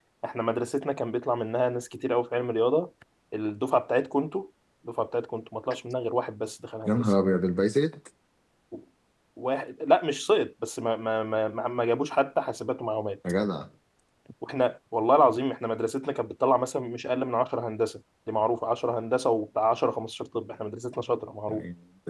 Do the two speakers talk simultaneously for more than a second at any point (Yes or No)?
No